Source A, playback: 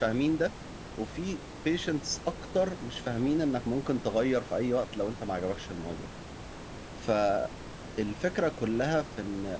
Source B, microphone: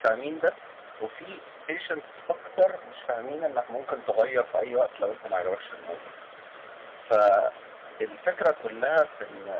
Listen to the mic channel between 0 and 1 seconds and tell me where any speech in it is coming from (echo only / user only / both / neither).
echo only